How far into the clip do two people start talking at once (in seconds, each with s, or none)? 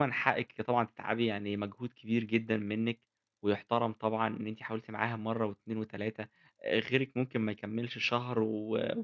none